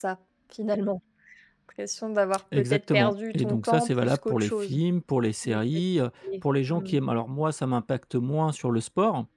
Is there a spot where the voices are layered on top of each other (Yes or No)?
Yes